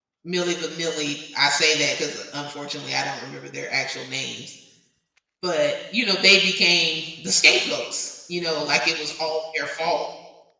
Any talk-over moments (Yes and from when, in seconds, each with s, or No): No